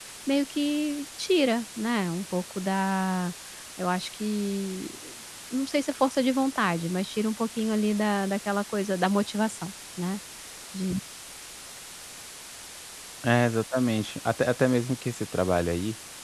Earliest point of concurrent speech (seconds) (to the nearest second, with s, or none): none